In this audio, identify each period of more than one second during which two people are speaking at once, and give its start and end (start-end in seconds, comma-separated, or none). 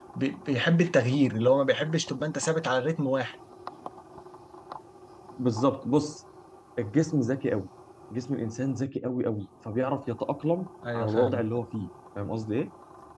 none